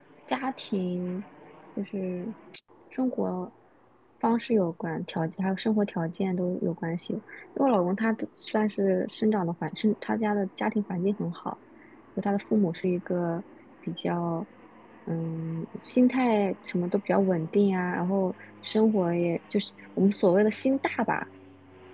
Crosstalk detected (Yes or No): No